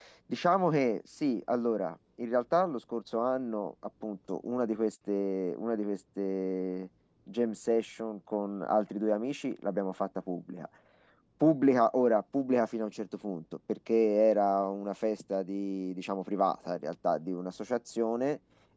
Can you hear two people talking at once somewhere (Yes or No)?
No